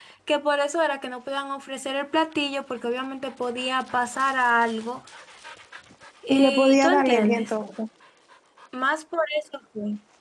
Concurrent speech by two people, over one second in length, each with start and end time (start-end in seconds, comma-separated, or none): 6.3-7.5